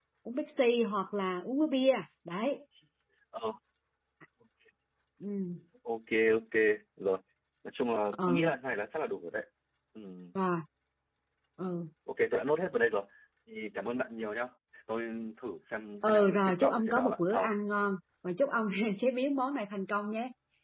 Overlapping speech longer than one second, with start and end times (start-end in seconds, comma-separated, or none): 16.0-17.5